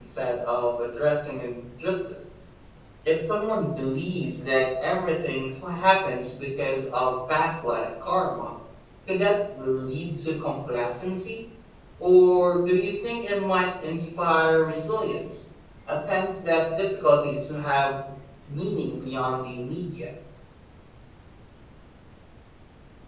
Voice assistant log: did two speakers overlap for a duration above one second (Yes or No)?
No